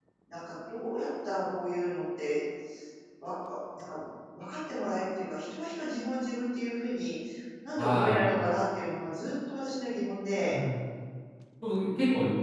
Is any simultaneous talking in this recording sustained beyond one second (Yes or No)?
No